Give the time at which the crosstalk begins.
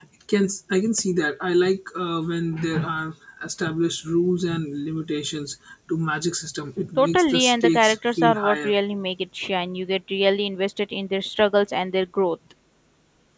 7 s

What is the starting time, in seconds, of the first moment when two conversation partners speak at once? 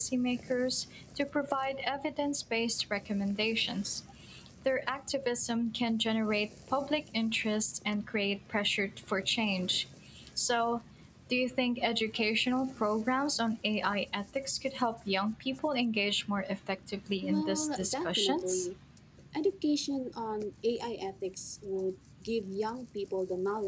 17 s

